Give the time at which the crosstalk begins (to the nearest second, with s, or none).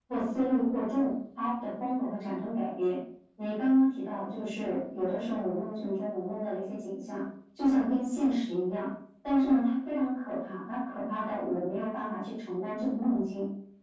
none